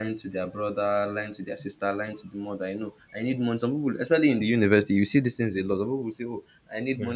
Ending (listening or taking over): listening